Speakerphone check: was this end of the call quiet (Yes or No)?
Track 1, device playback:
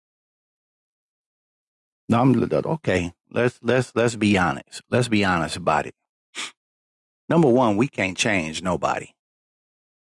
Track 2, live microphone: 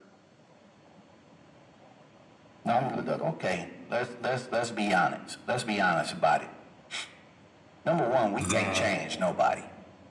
No